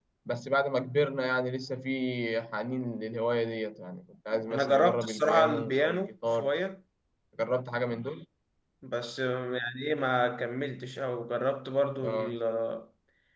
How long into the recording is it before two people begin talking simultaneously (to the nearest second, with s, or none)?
5 s